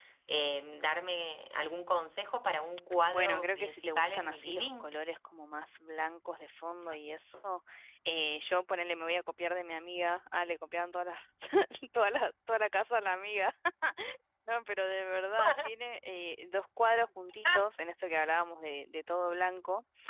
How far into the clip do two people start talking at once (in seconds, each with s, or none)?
3.1 s